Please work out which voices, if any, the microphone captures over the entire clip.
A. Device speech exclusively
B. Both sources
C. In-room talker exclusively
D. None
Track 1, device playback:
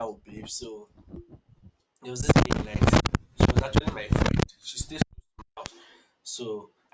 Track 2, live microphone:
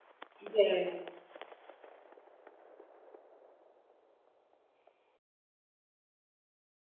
C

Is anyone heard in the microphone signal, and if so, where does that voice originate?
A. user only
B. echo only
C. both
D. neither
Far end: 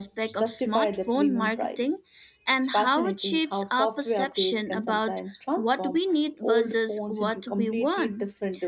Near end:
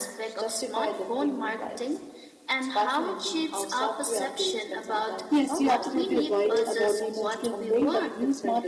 C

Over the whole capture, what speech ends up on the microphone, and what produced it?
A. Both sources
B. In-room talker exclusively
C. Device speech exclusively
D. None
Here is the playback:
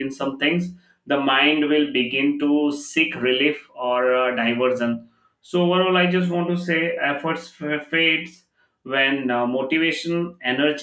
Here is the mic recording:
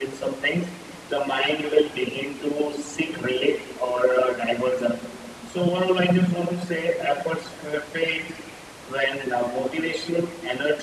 C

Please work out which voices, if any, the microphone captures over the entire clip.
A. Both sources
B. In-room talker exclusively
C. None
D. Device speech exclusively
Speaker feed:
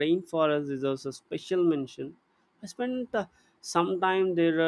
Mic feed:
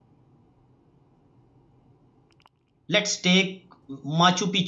B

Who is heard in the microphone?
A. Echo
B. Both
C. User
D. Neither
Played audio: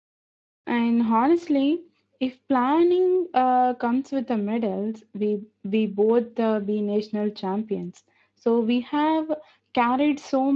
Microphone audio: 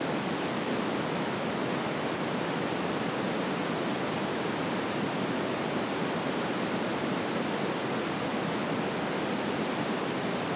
D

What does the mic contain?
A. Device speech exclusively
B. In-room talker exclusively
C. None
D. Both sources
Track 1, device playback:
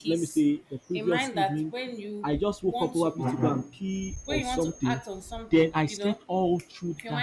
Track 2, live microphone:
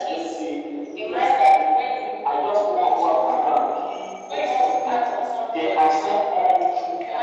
D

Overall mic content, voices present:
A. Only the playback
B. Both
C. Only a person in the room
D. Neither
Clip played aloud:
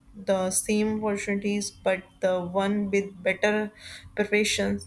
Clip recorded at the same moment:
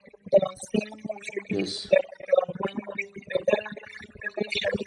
B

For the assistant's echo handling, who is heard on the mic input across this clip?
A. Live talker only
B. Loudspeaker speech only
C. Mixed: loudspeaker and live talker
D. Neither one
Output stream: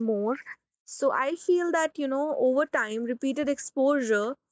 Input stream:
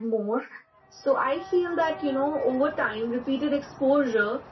B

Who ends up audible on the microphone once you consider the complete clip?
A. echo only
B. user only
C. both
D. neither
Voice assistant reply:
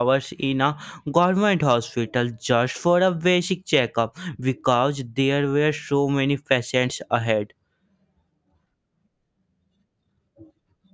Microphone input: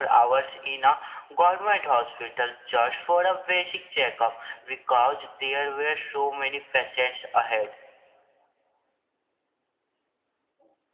A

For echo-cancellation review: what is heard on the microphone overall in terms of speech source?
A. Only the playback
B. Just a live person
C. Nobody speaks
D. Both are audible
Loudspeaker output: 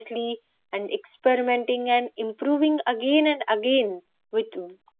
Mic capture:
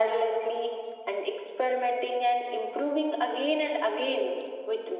A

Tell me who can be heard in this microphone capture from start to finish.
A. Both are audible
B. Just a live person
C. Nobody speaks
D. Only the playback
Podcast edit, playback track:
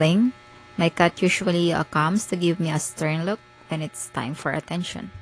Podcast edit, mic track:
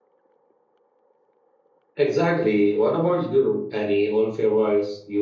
B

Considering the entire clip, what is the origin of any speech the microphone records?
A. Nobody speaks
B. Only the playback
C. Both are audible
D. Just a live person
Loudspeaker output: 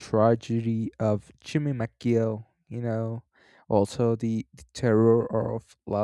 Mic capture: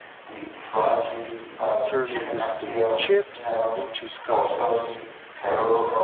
C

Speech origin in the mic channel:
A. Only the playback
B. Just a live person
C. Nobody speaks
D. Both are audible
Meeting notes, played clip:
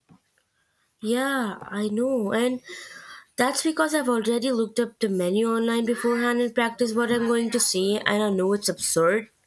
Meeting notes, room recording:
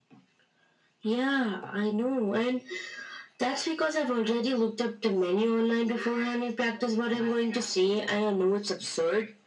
A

